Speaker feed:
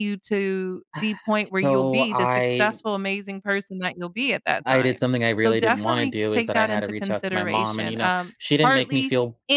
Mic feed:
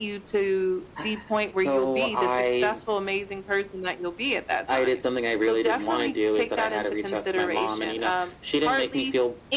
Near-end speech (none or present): none